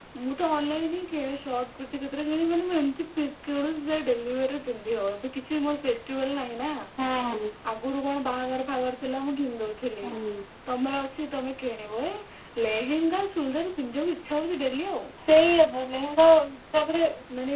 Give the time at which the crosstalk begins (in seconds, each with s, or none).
none